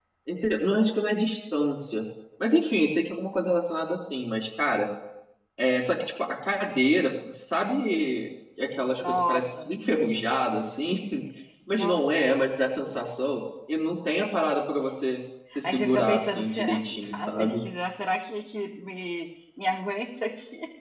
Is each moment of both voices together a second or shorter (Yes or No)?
No